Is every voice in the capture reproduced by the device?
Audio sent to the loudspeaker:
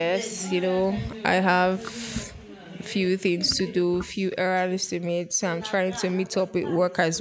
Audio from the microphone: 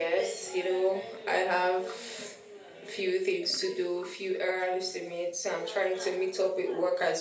Yes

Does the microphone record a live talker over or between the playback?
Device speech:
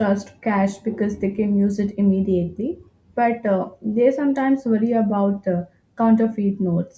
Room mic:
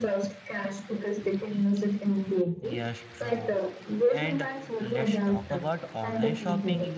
Yes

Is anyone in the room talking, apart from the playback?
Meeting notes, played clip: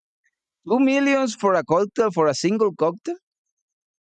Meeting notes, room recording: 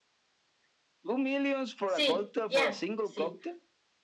Yes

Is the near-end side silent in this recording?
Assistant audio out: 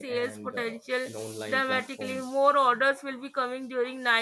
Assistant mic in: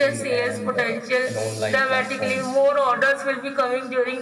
Yes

